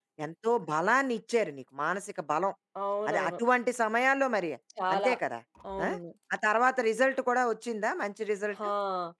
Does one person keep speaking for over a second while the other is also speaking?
No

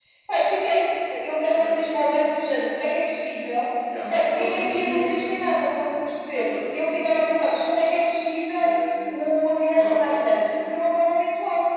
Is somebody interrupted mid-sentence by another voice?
Yes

